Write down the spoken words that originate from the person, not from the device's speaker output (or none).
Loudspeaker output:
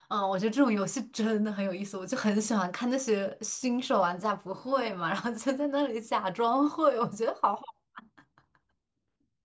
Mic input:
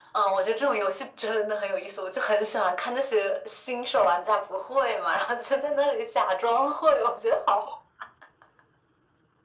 none